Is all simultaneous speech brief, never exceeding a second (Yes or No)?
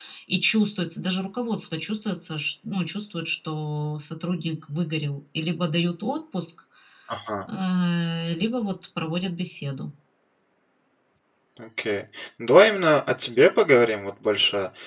Yes